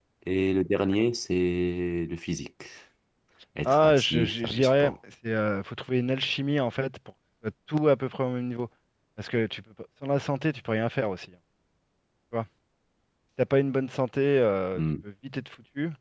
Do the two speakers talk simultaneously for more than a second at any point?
Yes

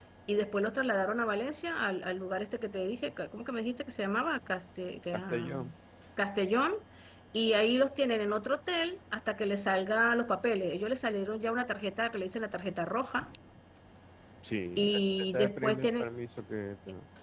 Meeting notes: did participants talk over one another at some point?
Yes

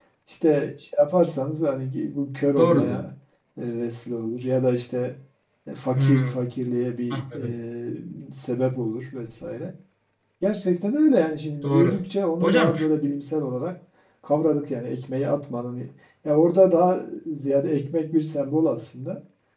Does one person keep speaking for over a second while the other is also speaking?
No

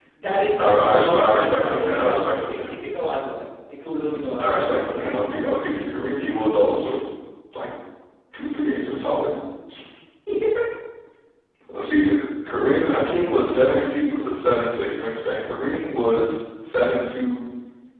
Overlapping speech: Yes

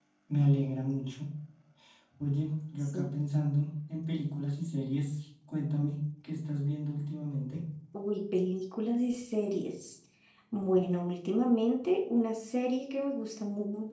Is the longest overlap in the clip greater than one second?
No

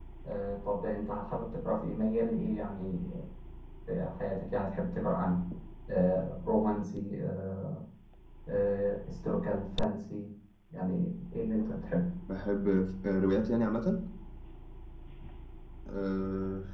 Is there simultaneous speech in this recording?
No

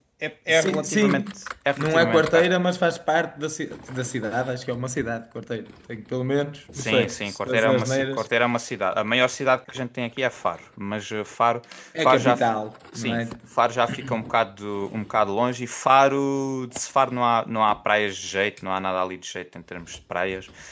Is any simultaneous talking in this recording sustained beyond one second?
Yes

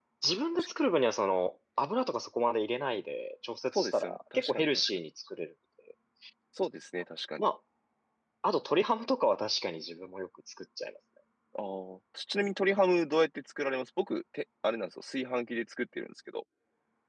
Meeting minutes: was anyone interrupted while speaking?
Yes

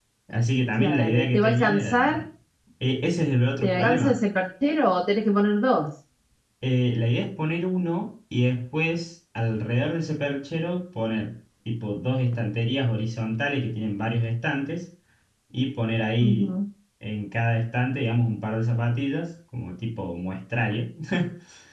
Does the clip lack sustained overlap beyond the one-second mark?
No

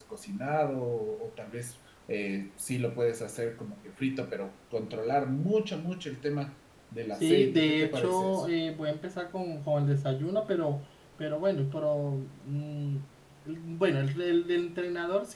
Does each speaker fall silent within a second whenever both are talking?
No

